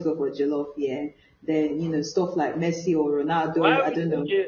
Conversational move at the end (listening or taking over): taking over